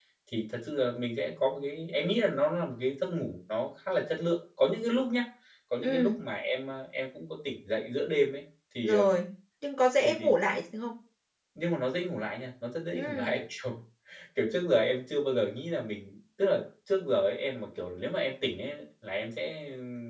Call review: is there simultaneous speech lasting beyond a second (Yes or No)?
No